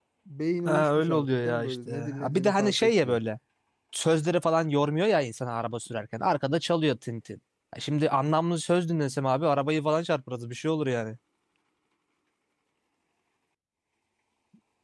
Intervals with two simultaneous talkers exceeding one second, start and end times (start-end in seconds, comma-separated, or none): 0.6-3.2